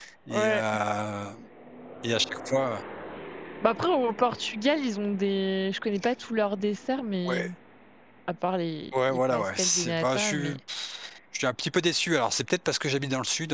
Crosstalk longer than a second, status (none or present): present